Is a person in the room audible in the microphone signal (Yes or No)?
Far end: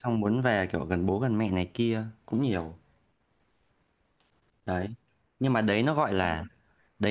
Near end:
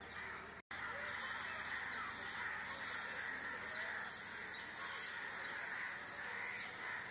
No